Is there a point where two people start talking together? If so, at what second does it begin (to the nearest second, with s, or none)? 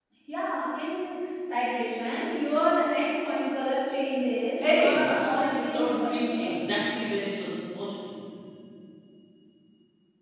5 s